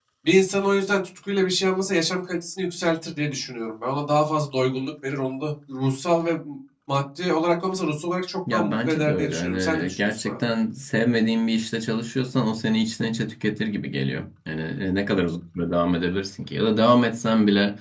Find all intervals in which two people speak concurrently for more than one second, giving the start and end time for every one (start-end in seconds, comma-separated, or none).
8.5-10.5